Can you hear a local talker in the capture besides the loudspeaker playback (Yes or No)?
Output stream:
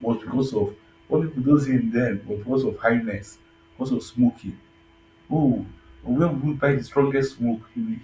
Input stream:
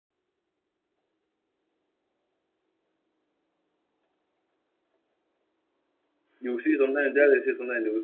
Yes